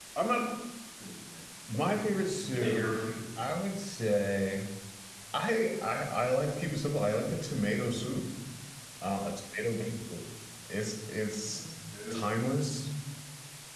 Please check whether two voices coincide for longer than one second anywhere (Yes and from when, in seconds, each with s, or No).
No